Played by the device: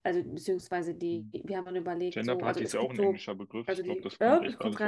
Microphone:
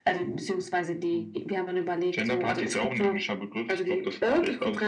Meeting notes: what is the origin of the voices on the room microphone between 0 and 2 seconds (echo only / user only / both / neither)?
echo only